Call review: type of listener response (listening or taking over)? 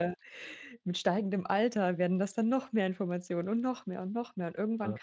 listening